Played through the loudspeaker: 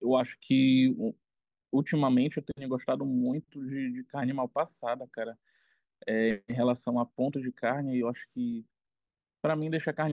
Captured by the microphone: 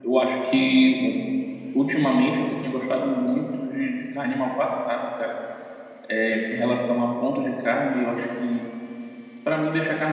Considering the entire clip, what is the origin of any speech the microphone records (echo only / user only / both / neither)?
echo only